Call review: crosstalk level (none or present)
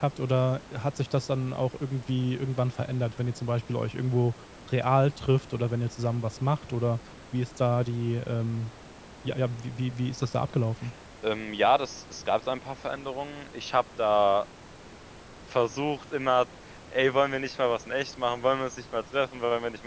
none